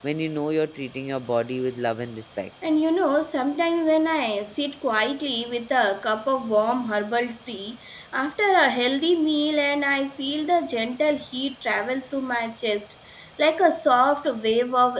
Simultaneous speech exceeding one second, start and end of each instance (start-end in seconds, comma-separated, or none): none